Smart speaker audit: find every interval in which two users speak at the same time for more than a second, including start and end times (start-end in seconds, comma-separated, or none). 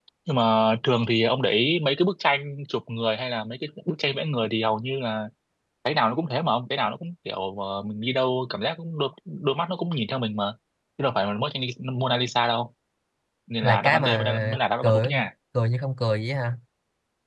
13.6-15.1